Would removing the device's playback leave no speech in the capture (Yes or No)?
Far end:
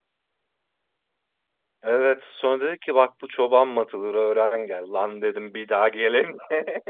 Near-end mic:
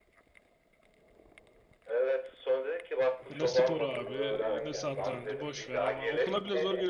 No